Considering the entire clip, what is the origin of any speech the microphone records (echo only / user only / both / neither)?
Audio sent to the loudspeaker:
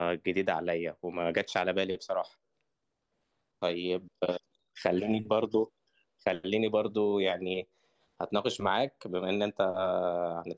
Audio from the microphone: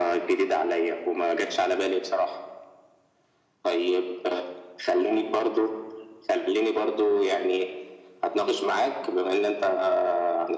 echo only